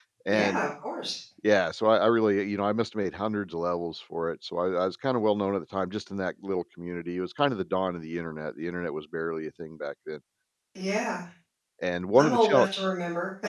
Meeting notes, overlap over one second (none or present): none